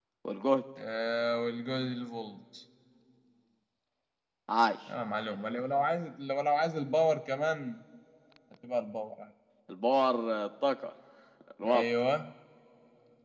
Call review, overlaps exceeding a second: none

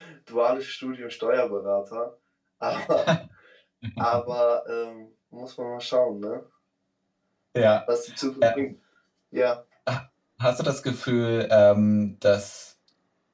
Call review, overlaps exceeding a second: none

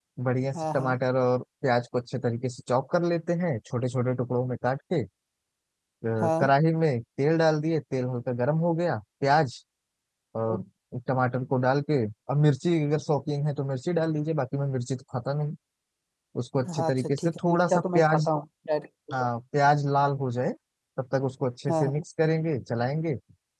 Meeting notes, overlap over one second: present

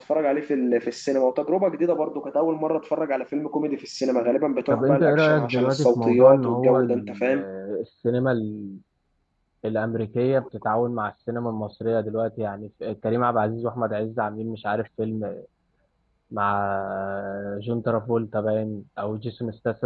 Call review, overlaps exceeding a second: present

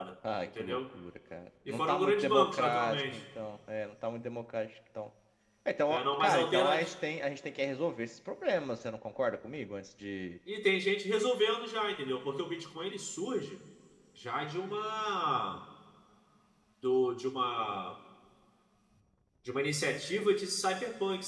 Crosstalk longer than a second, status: present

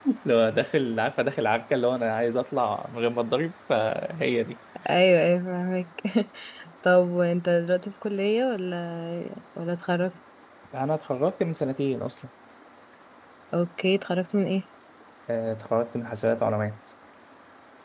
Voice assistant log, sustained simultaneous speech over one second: none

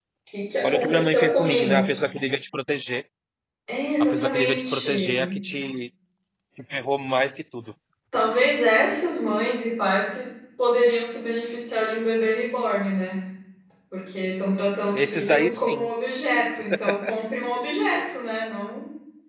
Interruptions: present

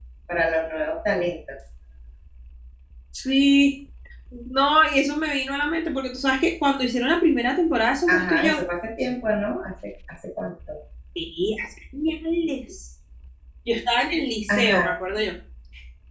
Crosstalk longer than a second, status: none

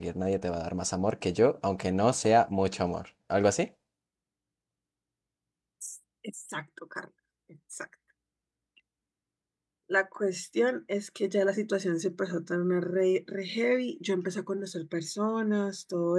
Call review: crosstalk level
none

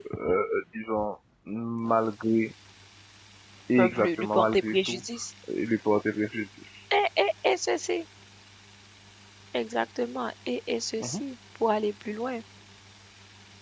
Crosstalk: present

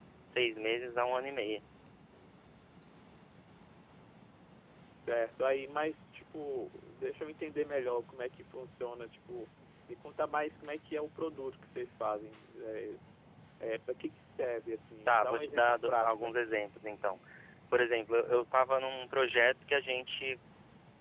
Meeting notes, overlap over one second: present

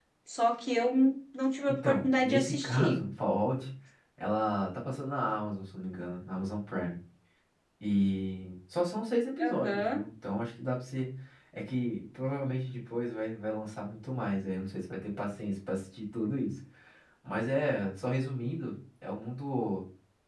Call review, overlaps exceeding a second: present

